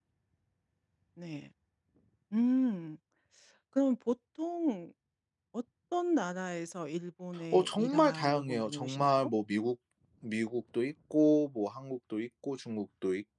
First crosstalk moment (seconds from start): 7.5 s

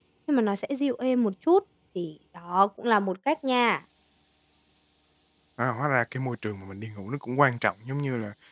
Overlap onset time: none

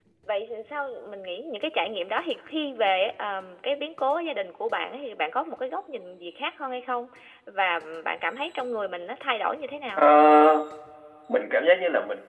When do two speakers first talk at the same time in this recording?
none

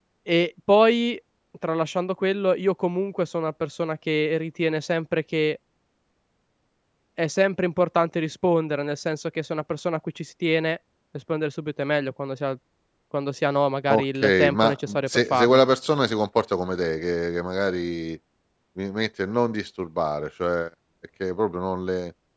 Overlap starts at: 13.9 s

